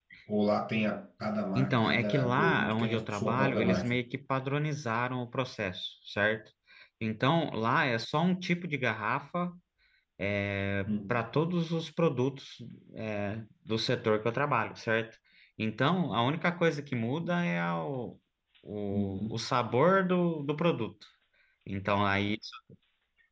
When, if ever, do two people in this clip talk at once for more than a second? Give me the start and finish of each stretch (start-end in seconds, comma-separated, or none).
1.6-4.0